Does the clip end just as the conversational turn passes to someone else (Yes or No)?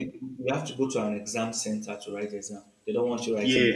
Yes